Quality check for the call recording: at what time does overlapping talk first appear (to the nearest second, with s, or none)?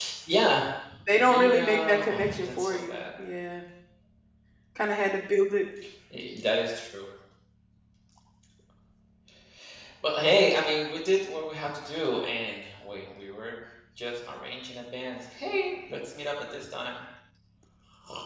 1 s